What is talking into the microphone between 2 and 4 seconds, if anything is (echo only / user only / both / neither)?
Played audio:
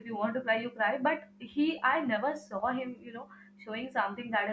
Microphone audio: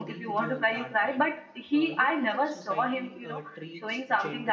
both